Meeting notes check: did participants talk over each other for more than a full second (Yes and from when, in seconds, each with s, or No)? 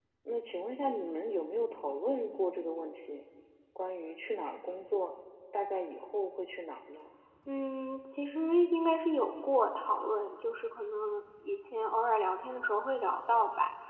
No